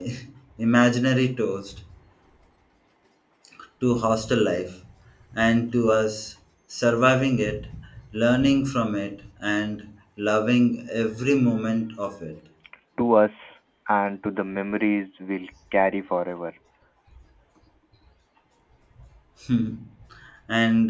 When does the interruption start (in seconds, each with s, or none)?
none